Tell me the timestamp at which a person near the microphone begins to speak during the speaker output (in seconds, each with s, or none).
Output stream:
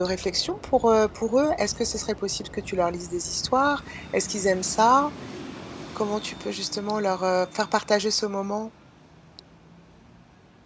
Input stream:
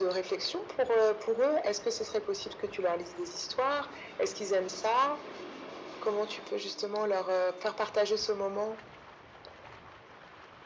none